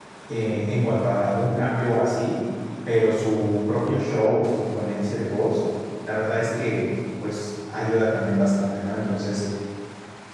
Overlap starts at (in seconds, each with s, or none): none